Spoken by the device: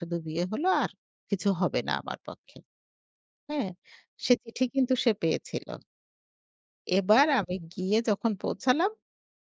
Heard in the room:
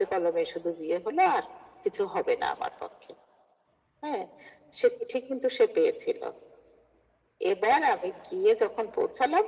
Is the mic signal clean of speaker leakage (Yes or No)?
No